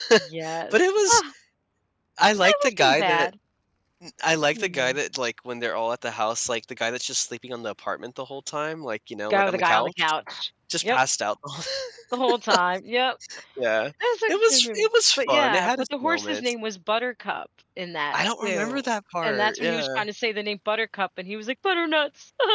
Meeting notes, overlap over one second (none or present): present